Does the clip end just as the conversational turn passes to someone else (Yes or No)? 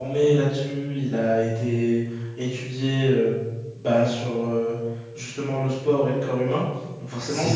No